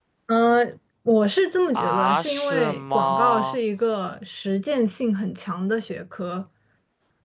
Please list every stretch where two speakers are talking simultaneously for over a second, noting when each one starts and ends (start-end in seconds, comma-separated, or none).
1.8-3.6